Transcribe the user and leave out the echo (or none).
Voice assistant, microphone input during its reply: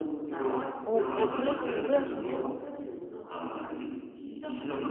어 꽤 그래도 오래 하시네요.